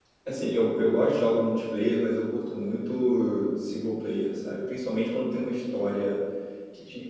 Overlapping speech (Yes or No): No